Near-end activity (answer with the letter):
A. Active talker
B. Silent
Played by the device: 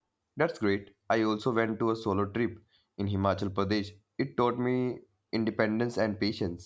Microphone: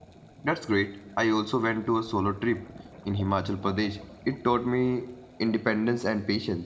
B